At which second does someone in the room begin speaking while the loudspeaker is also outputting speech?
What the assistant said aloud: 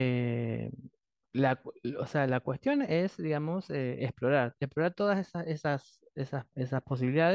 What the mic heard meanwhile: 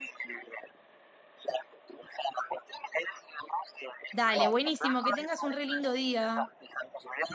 4.1 s

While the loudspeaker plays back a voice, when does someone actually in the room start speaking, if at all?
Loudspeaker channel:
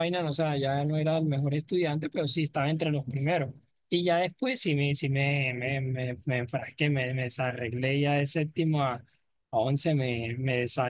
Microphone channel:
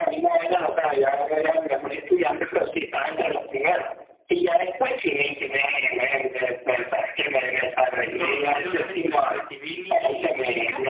8.1 s

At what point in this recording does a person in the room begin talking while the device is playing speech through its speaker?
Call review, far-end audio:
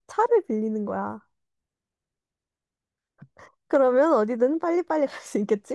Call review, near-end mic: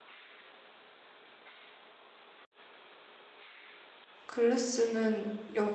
4.3 s

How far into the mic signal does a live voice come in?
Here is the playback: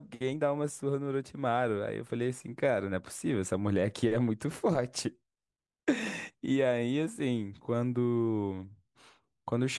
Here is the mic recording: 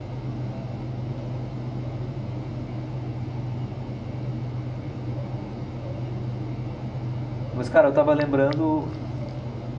7.5 s

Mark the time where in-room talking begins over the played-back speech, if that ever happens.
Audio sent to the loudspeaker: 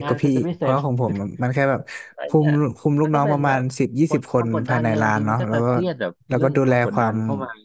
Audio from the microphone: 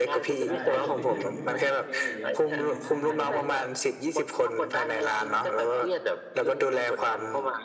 0.4 s

